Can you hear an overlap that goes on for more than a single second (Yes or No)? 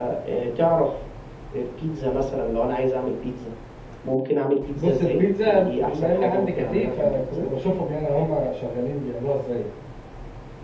Yes